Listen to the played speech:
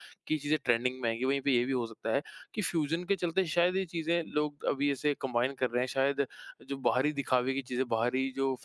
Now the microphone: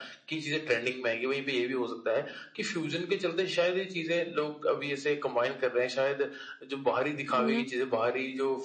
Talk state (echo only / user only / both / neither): both